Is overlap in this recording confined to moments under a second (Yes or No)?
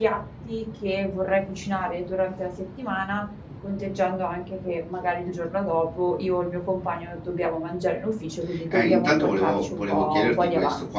No